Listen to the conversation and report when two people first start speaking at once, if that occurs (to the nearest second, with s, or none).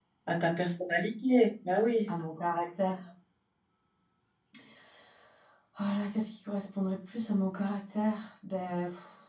none